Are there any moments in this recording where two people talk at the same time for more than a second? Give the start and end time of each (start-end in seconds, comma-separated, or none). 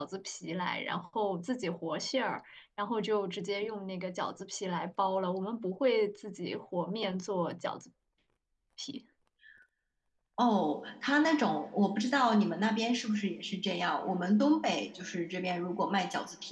none